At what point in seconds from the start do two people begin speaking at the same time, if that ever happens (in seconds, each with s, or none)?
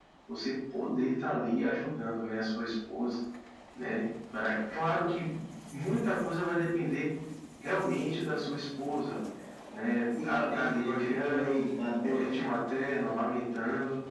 10.2 s